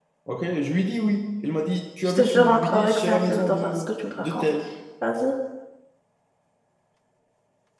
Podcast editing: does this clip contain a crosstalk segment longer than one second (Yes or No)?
Yes